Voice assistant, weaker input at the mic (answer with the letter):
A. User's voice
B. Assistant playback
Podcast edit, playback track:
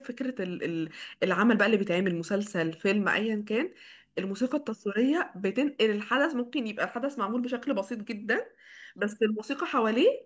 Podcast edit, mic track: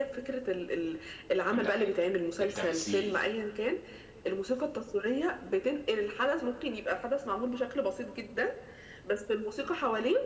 A